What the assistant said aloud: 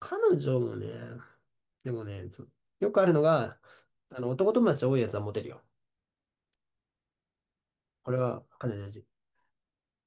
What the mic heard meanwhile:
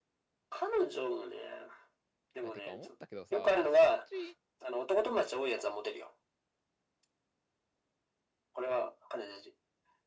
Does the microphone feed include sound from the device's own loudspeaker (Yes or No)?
Yes